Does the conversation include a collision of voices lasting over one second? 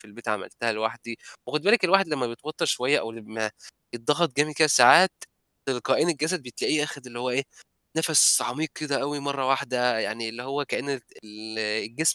No

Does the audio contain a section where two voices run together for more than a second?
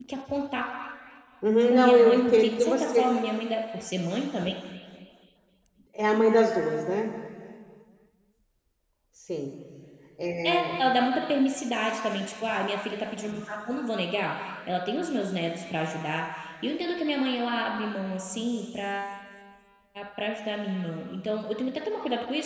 Yes, from 1.7 s

